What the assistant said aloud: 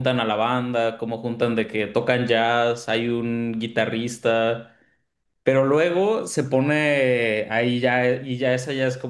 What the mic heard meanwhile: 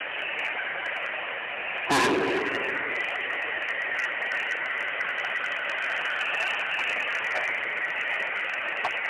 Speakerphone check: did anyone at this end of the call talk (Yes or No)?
Yes